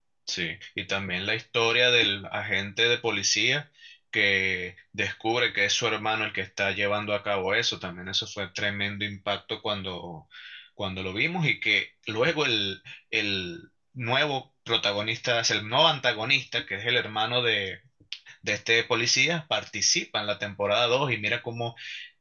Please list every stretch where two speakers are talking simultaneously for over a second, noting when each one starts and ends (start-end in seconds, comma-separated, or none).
none